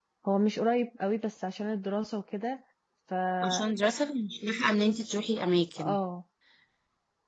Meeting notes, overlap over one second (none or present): none